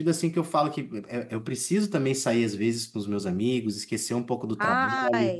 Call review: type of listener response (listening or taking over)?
listening